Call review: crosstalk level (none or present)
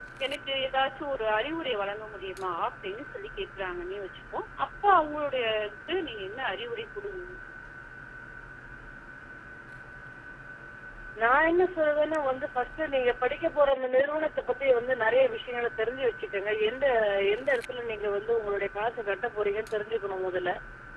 none